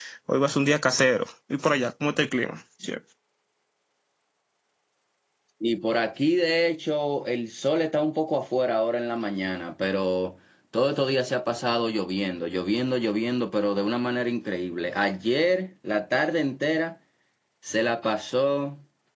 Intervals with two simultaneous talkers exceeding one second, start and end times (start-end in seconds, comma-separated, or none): none